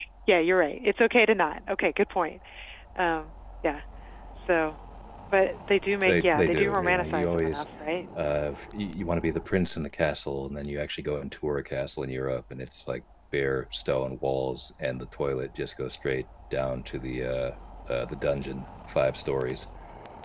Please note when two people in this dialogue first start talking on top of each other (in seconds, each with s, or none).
6.1 s